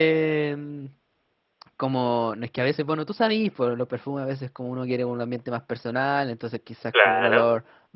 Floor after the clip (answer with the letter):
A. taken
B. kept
B